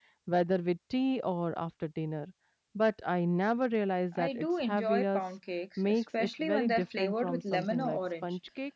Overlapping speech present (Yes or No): Yes